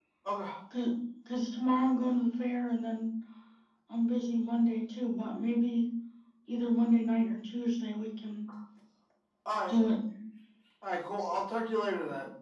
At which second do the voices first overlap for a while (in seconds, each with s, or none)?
none